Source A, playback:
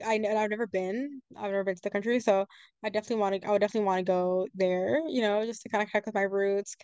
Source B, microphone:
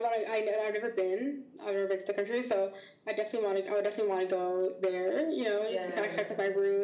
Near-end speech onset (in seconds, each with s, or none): 5.6 s